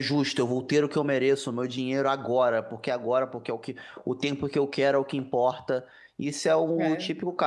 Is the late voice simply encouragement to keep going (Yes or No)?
Yes